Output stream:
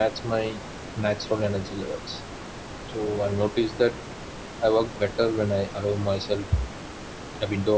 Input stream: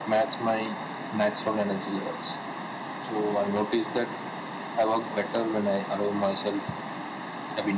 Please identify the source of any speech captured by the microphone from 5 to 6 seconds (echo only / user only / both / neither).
echo only